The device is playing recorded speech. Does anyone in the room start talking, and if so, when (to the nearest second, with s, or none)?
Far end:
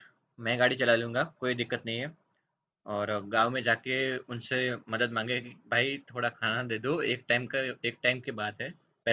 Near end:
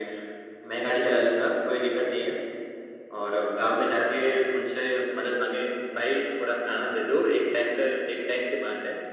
none